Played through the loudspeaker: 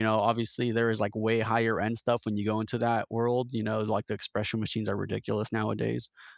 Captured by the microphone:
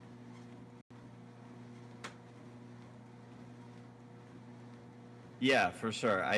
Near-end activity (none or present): present